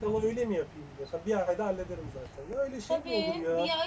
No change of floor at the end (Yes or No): No